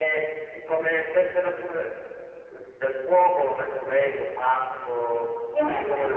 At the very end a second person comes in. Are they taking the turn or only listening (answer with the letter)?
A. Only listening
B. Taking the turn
B